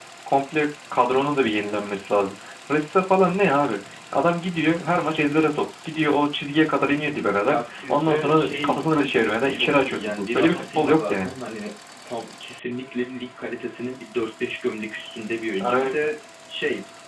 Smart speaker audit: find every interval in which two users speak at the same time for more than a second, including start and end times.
7.4-8.8, 9.5-11.4

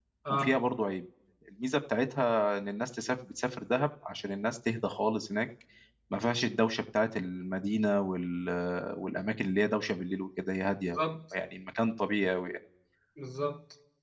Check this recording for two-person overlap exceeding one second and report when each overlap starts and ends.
none

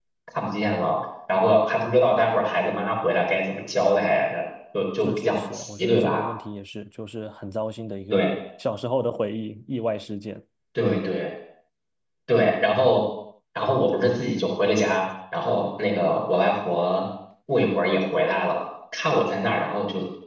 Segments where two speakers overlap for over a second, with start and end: 5.0-6.2

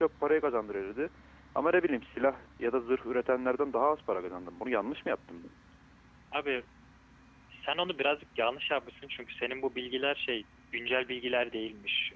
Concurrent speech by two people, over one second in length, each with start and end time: none

